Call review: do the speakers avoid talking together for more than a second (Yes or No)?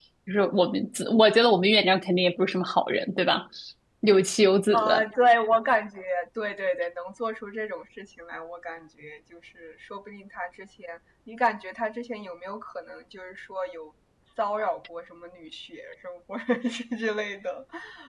Yes